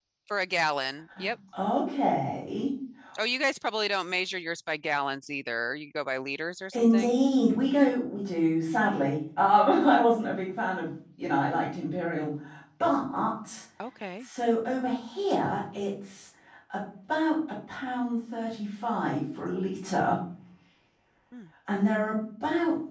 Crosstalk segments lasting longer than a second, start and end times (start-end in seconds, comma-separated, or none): none